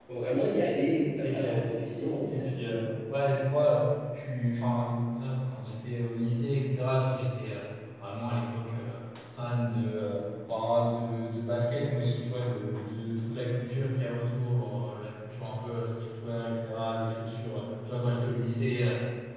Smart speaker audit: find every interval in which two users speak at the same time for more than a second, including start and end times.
none

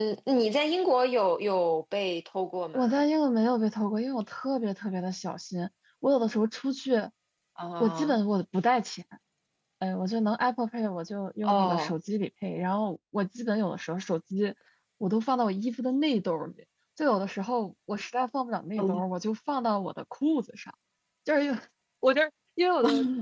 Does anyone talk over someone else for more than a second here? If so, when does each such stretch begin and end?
none

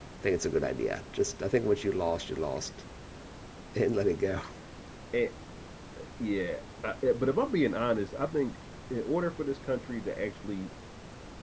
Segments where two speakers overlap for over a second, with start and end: none

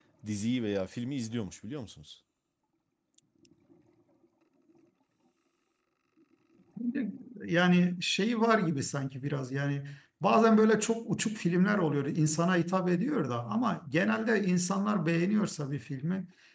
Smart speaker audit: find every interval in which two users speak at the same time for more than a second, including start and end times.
none

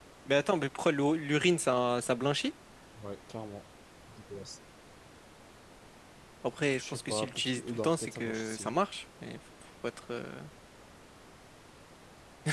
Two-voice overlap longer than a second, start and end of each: 6.8-8.7

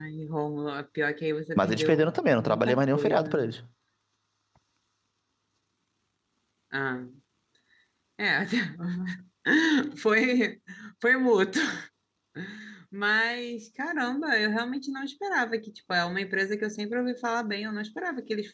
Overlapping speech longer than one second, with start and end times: 1.6-3.5

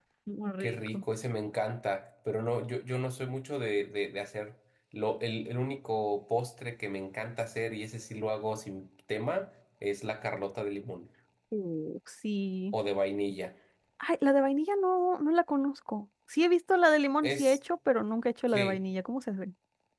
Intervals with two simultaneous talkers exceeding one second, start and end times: none

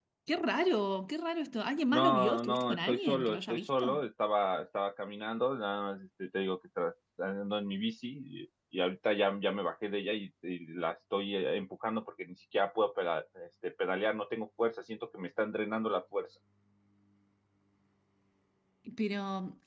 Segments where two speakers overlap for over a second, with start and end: 1.9-4.0

